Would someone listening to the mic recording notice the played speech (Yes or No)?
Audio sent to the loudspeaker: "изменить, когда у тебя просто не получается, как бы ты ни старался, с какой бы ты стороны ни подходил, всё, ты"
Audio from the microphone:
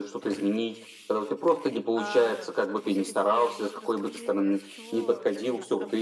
Yes